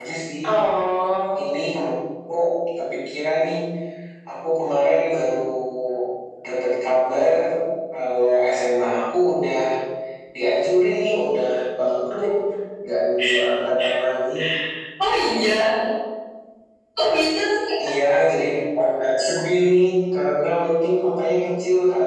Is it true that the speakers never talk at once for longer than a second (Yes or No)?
Yes